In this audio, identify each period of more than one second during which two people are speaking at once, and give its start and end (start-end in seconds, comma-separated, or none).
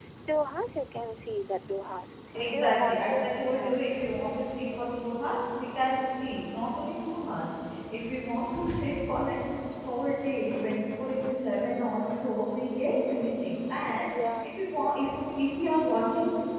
2.4-3.8